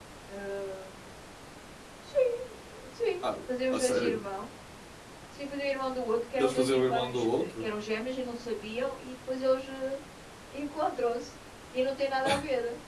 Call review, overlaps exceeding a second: present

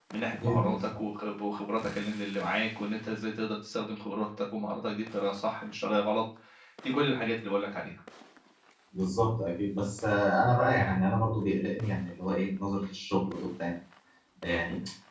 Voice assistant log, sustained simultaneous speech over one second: none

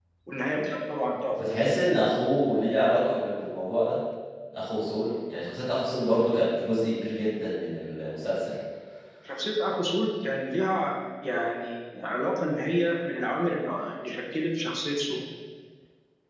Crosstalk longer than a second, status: none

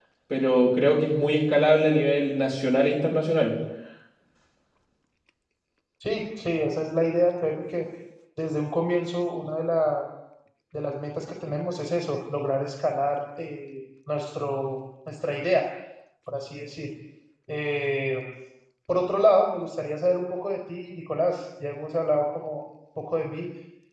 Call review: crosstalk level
none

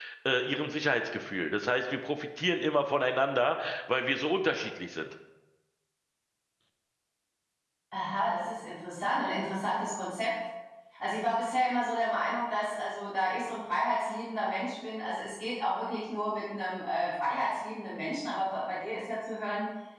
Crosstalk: none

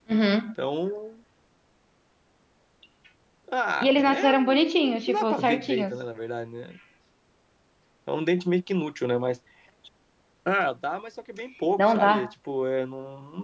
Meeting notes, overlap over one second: present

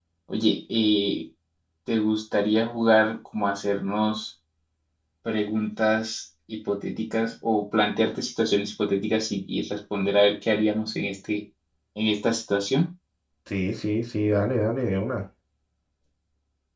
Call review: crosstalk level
none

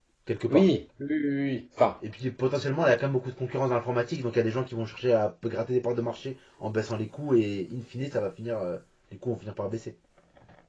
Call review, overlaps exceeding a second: none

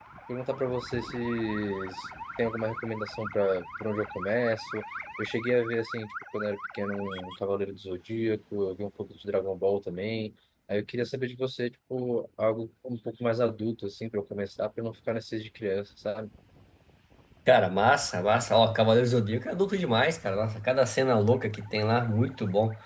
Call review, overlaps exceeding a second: none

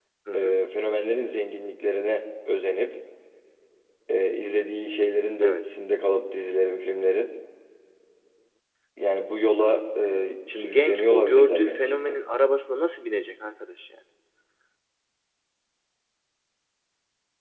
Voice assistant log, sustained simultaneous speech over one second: present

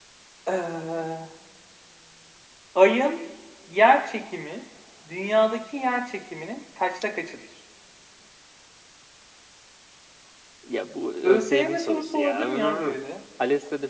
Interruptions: present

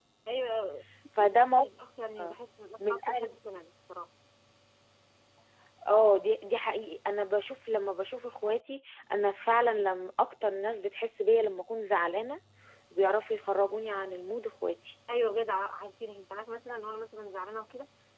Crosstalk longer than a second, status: none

